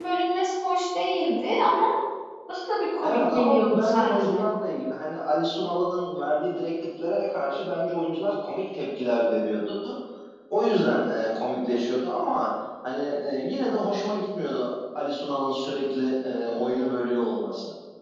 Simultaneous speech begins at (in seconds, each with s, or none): 3.0 s